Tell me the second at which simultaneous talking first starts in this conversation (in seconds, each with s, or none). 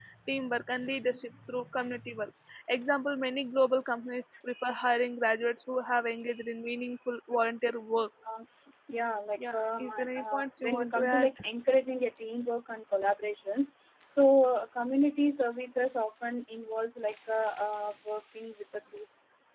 9.5 s